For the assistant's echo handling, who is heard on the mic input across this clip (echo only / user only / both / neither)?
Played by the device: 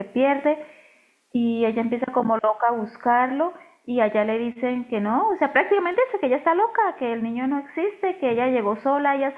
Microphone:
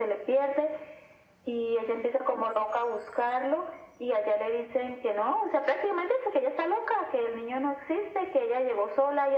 echo only